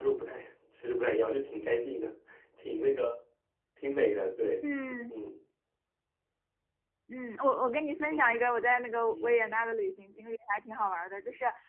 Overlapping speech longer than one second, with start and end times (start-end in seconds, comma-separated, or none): none